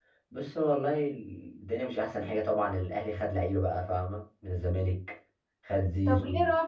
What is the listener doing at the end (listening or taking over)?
taking over